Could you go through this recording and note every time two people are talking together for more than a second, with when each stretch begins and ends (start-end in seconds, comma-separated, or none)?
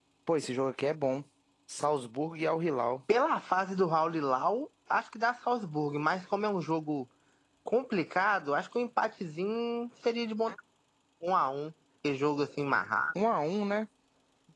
none